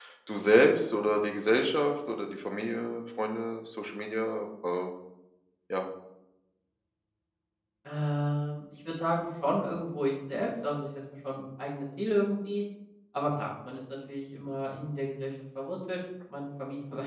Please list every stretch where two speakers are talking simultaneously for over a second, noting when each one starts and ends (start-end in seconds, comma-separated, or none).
none